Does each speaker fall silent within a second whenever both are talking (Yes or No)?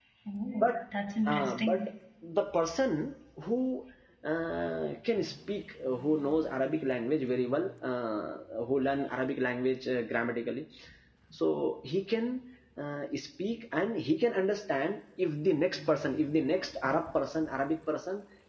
Yes